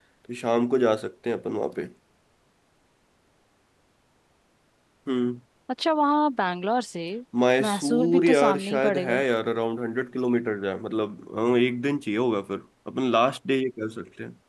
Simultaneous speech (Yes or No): Yes